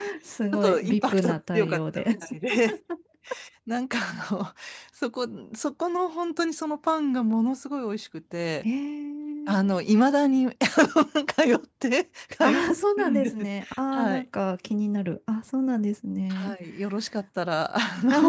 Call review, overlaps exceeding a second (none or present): present